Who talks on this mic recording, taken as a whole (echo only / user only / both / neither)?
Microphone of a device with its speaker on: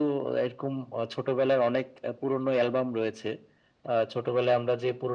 echo only